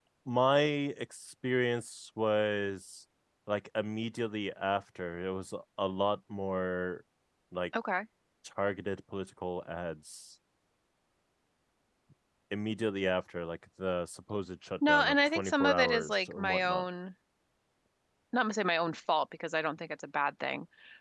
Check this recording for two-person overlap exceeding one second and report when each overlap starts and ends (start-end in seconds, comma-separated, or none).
14.9-16.8